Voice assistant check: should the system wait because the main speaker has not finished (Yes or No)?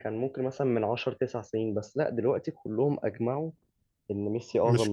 No